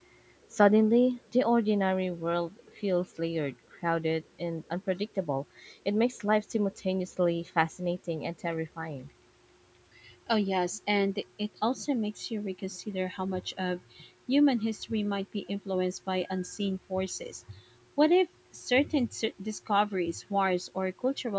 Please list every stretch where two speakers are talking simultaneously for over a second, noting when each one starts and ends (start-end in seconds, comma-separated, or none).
none